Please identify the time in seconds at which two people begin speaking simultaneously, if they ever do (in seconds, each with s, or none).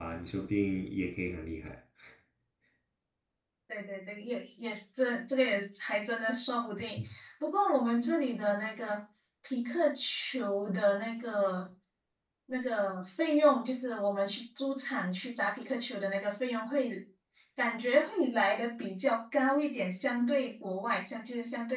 none